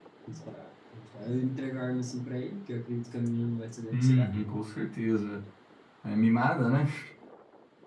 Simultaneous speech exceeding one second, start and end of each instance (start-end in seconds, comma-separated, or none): none